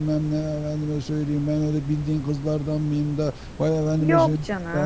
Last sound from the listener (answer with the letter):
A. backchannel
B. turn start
B